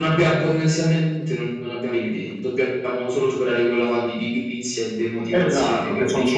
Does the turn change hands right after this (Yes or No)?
Yes